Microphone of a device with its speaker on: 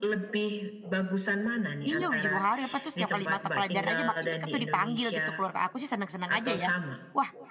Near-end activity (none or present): present